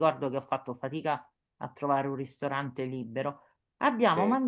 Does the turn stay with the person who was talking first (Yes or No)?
Yes